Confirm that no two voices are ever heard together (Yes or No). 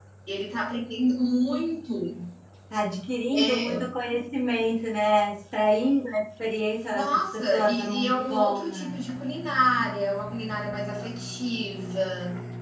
No